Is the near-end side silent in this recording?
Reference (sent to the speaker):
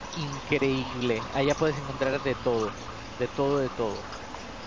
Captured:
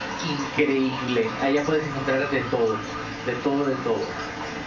Yes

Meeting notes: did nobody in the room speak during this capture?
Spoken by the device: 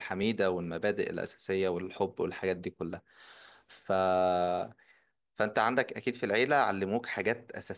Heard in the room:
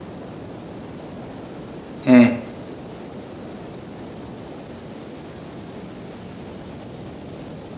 No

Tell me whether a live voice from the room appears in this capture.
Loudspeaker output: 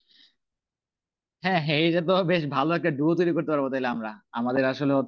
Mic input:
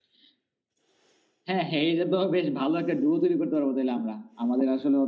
No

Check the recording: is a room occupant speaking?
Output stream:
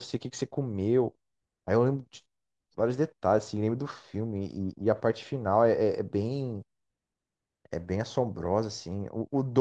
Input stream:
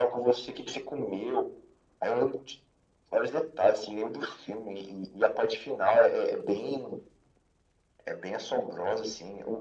No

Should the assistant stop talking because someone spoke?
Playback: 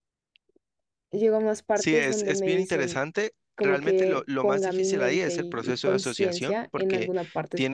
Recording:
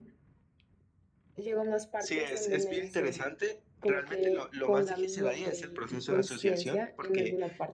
No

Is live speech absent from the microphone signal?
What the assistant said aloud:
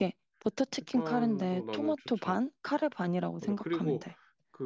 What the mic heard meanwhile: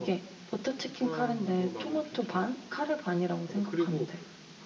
Yes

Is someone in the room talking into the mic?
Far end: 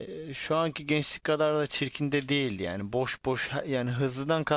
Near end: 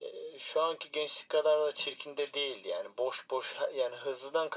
No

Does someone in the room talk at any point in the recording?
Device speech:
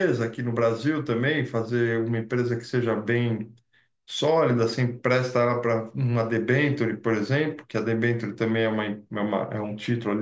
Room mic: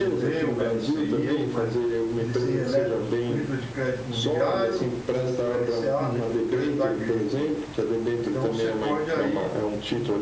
Yes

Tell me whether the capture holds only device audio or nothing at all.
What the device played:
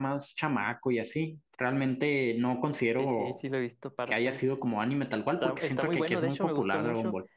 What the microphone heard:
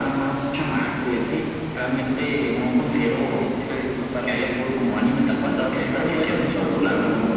Yes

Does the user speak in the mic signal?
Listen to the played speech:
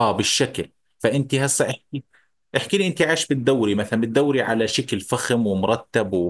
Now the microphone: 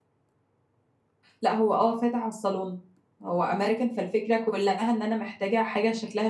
Yes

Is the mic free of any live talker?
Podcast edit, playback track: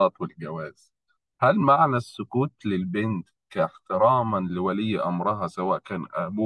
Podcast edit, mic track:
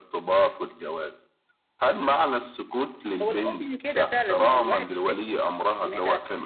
No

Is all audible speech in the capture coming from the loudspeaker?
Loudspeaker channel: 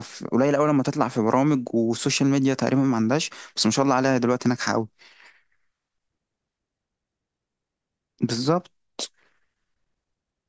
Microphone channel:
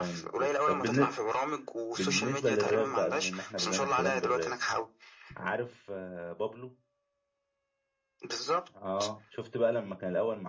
No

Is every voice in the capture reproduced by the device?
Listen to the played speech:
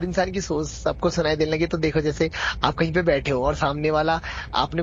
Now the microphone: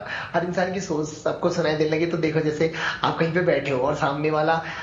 Yes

